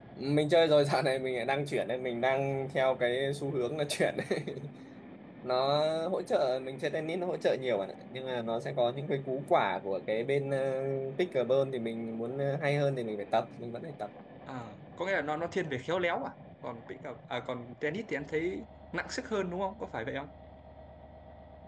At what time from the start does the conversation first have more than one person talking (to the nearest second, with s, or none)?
none